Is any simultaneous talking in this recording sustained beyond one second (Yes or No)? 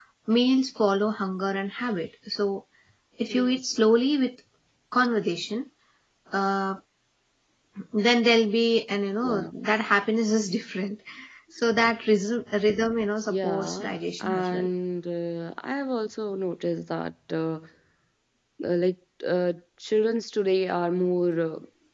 Yes